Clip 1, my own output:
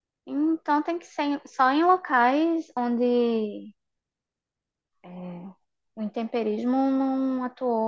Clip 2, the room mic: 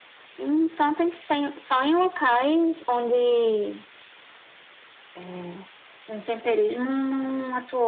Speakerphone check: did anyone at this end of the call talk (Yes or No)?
No